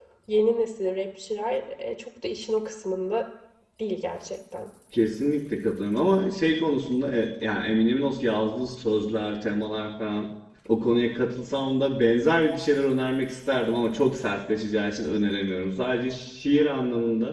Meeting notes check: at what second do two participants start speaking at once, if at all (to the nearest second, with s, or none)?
none